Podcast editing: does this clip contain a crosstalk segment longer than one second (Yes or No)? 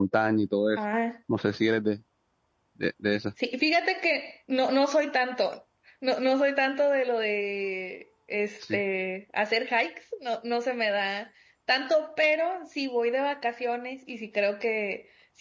No